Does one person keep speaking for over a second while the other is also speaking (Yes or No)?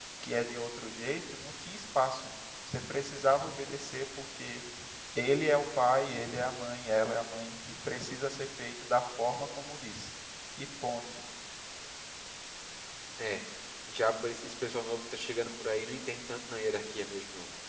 No